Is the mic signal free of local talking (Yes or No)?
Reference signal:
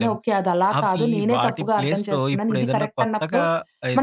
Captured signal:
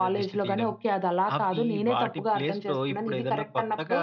Yes